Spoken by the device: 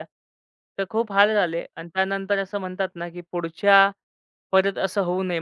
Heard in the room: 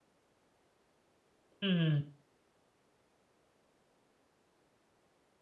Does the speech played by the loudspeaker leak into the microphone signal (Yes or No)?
No